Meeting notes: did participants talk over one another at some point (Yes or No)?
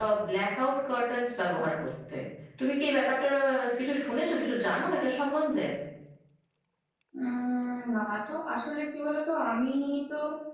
No